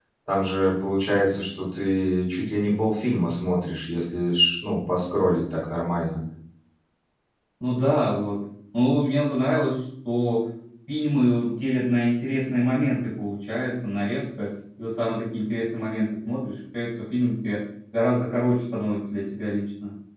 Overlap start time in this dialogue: none

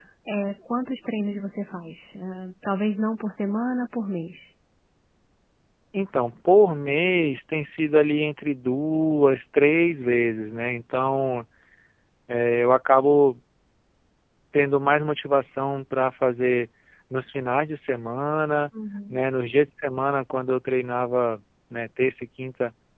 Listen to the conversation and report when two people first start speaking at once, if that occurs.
none

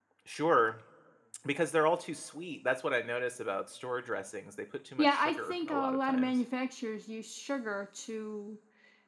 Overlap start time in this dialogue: 5.0 s

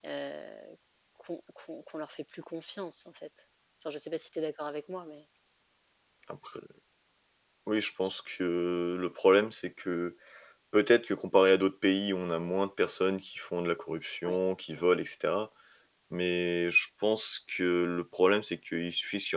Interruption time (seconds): none

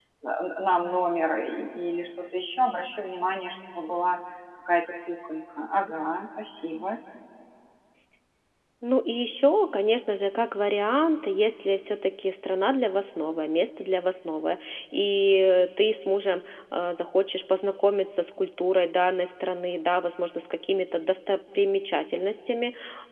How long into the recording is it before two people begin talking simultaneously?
none

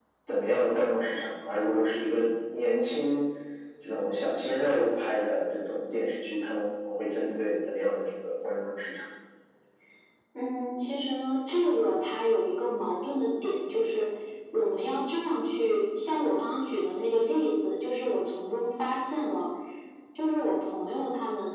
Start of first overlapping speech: none

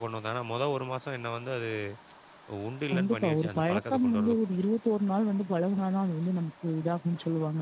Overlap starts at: 2.9 s

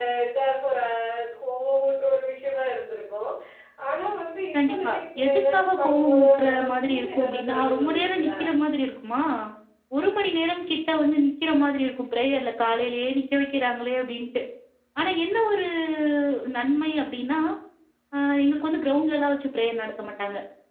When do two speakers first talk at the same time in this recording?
4.7 s

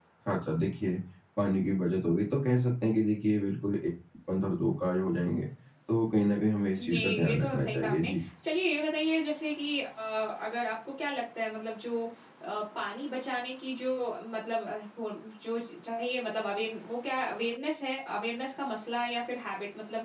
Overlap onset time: 6.8 s

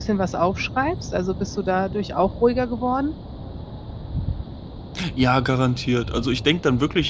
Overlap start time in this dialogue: none

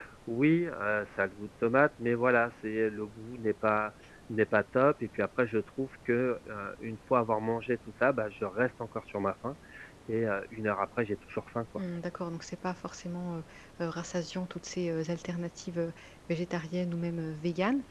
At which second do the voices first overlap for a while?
none

